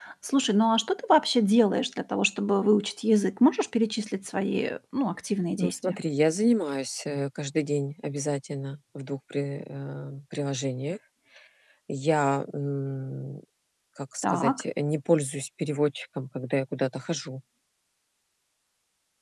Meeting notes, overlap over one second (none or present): none